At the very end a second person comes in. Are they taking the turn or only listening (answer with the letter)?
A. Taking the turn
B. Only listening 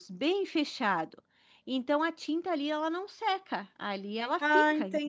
A